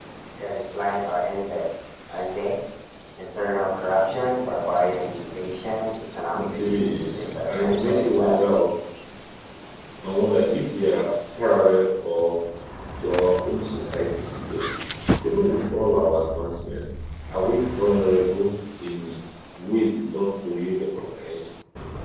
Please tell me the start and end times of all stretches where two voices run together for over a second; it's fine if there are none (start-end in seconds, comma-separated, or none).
6.3-8.4